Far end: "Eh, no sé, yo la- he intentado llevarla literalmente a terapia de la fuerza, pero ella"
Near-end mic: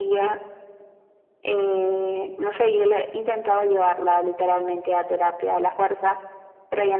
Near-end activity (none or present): none